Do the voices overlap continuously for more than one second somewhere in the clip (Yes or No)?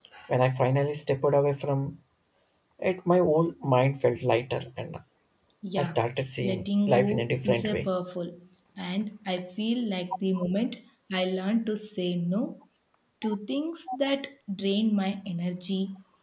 Yes